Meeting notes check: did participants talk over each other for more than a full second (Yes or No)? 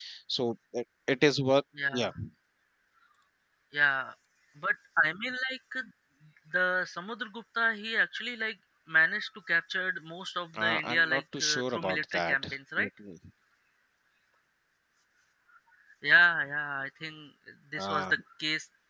Yes